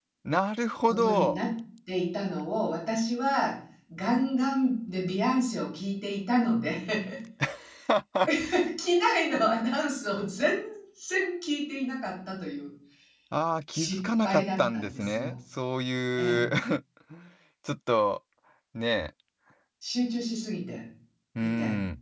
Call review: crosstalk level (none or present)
present